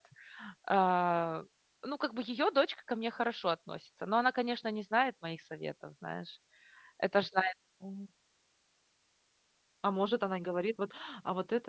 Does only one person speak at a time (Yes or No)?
Yes